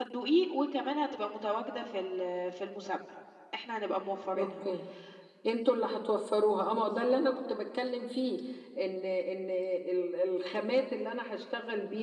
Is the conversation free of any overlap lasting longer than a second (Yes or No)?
Yes